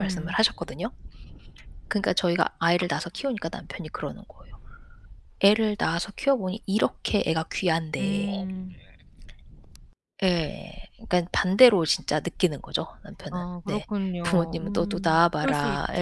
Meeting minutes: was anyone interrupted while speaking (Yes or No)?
Yes